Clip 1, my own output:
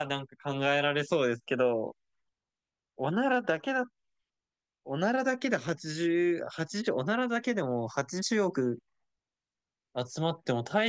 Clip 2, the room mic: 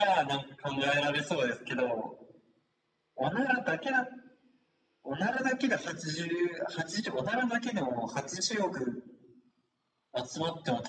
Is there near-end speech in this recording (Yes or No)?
No